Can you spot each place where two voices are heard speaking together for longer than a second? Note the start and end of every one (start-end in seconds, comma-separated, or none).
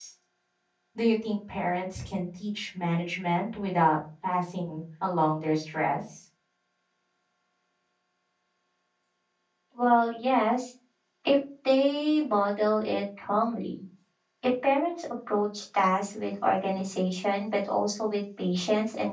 none